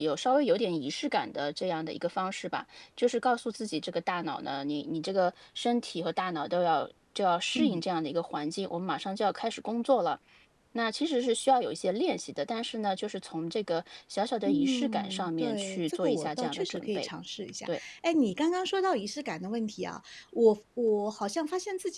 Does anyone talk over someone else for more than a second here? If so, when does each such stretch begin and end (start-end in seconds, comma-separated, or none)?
14.4-17.1